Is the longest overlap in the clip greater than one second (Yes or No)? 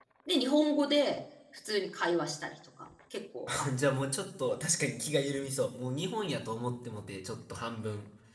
No